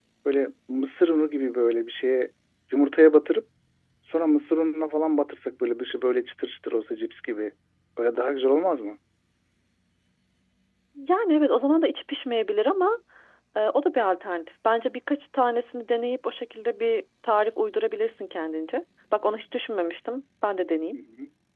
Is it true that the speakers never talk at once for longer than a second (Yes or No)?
Yes